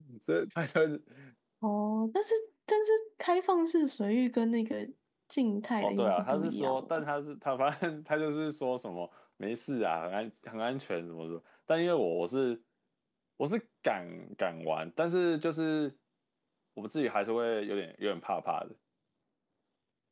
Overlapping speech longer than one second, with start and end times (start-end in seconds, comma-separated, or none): 5.8-7.0